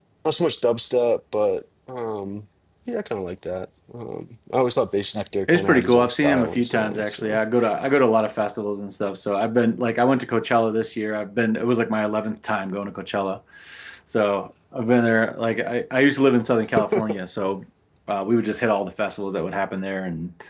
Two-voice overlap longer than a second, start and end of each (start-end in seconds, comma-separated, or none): 5.5-7.4